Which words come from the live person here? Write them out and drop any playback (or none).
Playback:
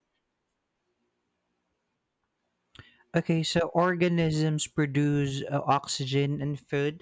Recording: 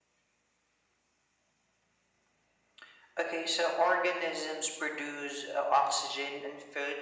none